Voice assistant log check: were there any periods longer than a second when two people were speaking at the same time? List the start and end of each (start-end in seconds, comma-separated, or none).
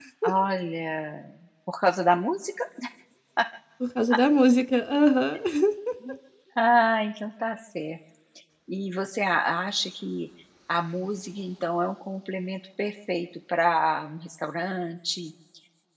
none